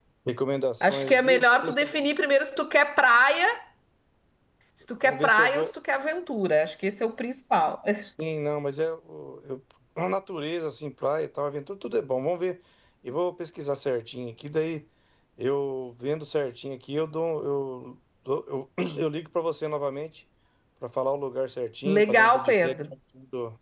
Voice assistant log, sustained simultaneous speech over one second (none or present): present